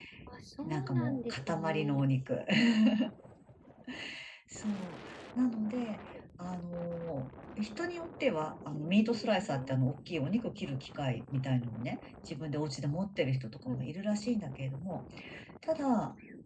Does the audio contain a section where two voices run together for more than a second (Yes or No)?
Yes